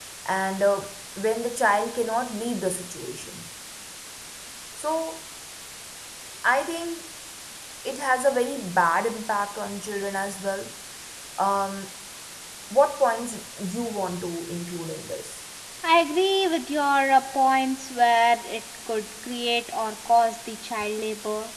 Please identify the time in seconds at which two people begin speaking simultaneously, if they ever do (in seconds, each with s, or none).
none